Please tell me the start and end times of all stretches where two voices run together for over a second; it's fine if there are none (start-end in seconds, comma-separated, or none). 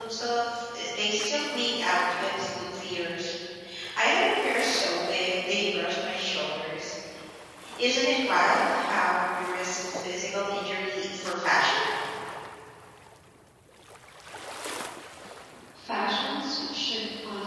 none